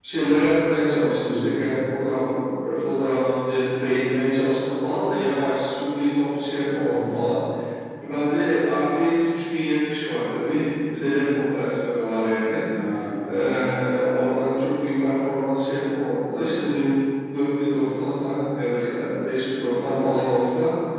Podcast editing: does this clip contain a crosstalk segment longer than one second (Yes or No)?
No